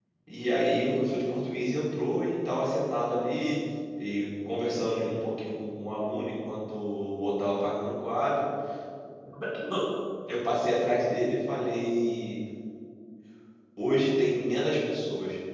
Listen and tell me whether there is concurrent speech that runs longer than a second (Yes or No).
No